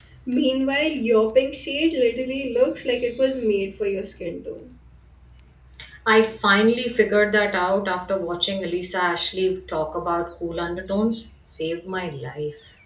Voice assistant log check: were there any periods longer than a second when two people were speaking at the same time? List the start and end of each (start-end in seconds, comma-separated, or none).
none